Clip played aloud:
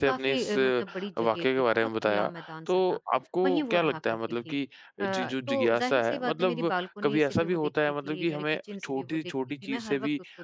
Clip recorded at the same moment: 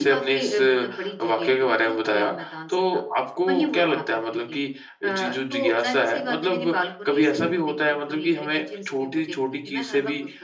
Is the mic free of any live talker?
Yes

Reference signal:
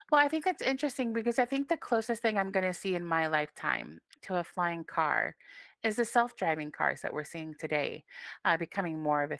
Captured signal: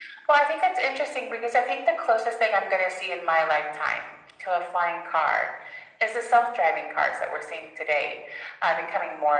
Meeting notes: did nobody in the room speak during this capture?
Yes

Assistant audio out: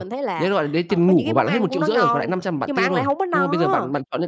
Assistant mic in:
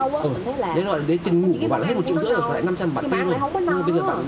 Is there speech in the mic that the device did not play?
No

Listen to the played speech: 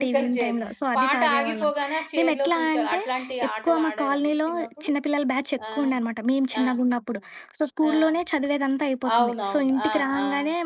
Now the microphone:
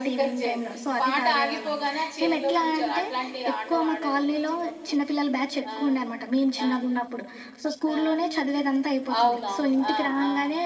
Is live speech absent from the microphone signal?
Yes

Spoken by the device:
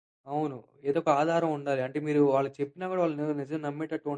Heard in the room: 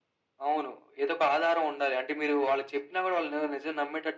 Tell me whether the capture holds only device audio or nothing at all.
Yes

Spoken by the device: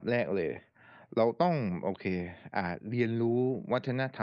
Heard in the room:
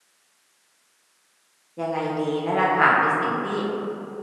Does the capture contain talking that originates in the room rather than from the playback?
Yes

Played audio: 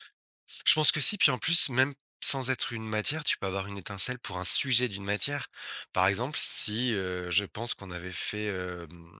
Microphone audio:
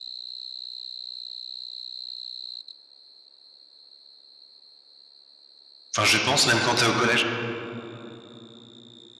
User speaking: Yes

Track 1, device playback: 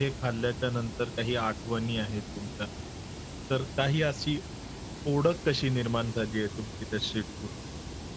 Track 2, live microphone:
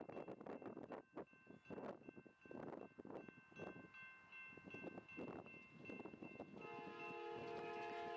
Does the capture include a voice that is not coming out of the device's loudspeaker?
No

